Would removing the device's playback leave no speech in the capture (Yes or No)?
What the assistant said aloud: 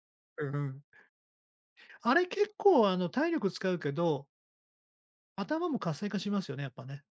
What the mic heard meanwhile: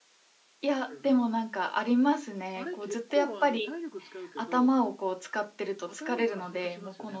No